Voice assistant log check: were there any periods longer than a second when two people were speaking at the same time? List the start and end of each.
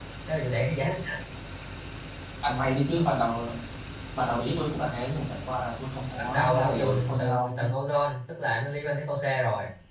6.2-7.7

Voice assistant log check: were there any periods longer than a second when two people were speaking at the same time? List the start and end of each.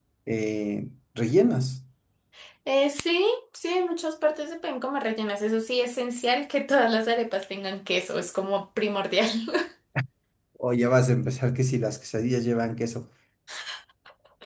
none

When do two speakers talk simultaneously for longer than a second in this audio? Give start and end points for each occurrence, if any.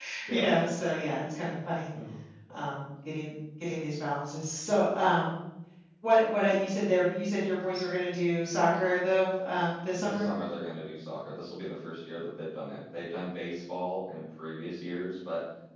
none

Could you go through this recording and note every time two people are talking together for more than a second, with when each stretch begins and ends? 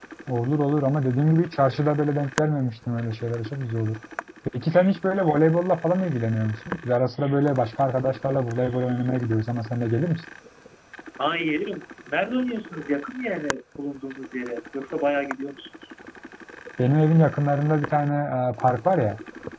none

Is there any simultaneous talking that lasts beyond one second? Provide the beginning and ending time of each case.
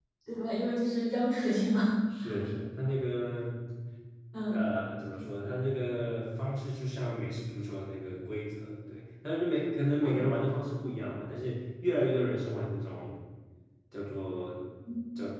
none

